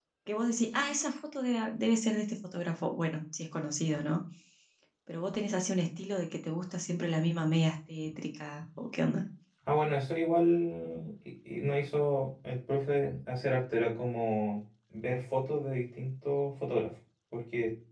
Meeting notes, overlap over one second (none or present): none